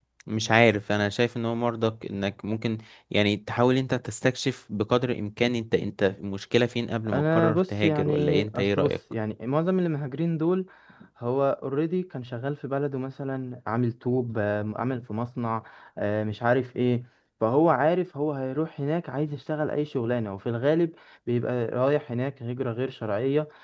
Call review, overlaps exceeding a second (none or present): present